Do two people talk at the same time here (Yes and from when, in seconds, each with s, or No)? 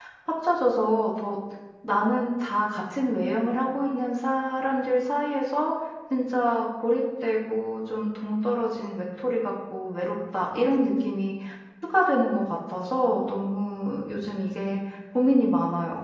No